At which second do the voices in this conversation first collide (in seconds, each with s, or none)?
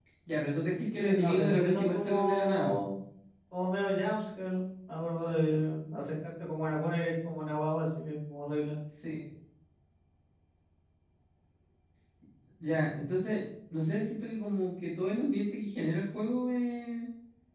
1.0 s